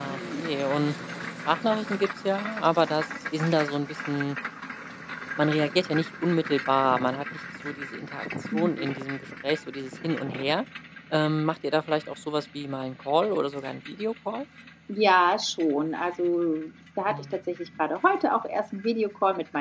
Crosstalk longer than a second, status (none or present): none